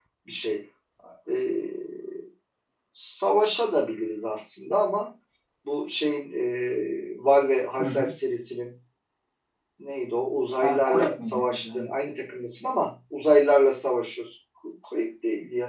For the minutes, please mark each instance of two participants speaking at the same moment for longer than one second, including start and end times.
10.6-11.9

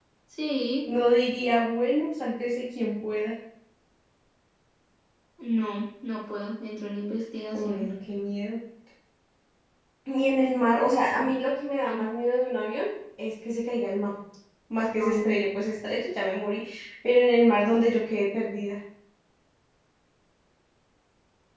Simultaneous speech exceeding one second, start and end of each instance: none

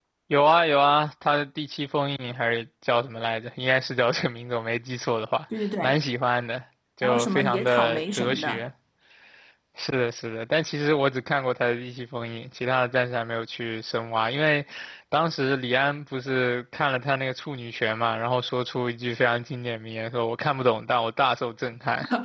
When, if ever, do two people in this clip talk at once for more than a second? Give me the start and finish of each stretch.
7.0-8.6

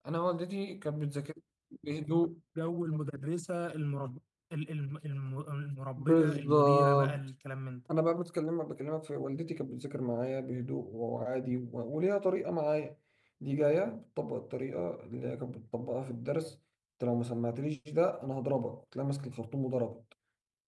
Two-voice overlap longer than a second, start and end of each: 6.0-7.3

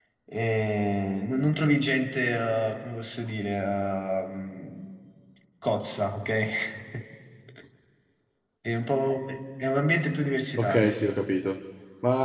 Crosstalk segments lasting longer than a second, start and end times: none

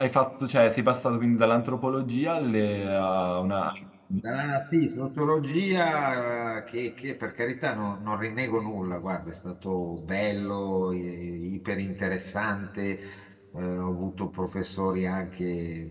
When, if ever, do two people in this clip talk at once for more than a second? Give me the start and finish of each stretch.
none

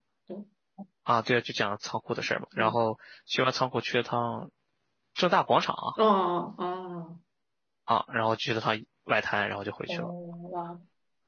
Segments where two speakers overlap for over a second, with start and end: none

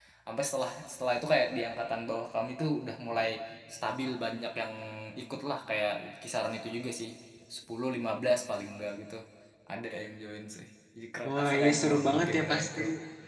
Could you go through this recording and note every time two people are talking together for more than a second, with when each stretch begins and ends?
11.3-12.8

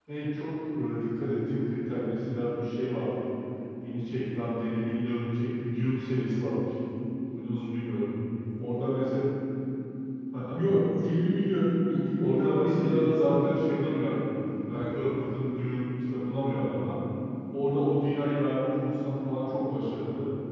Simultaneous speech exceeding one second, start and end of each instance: 12.2-13.5

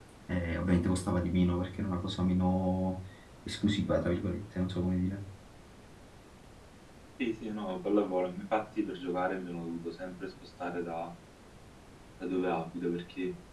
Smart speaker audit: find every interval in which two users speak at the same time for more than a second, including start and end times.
none

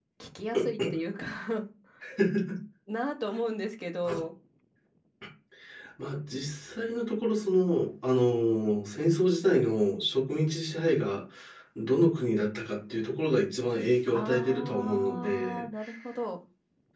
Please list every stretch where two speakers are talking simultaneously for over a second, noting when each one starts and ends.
14.1-15.6

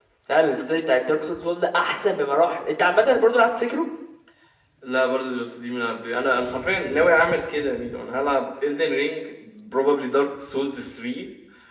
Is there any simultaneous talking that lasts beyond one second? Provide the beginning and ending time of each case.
none

